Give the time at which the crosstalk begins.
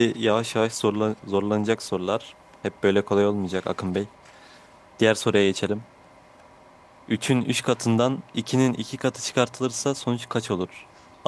none

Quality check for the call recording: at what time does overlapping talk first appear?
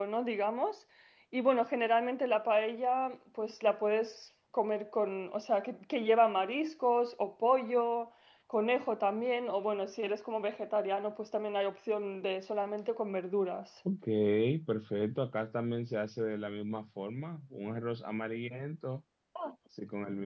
none

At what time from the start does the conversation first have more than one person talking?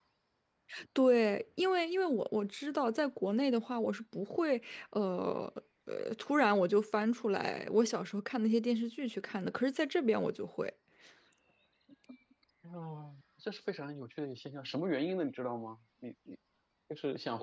none

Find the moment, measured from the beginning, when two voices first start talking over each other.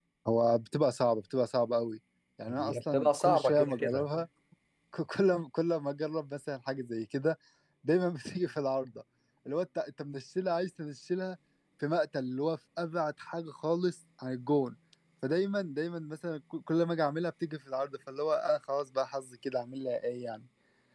2.6 s

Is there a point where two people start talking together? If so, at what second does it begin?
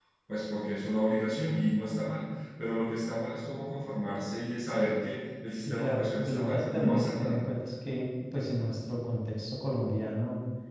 5.7 s

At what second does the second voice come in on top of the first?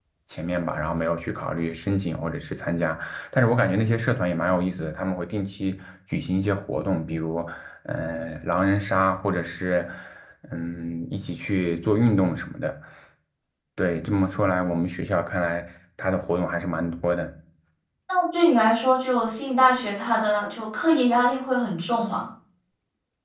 none

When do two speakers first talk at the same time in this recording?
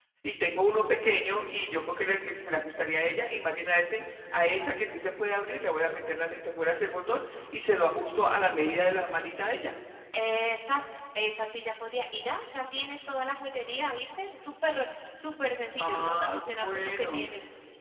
15.8 s

